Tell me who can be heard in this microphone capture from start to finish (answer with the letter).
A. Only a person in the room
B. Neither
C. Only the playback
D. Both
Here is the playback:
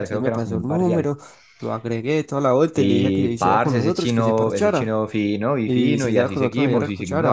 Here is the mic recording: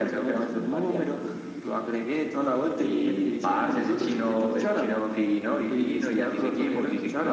C